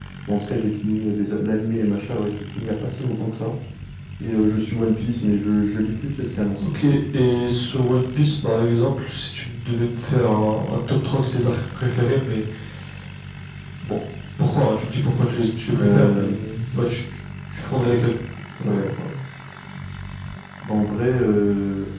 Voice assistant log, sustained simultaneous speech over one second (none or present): none